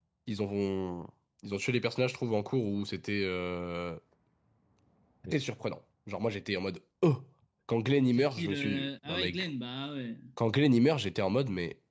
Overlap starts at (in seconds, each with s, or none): 8.2 s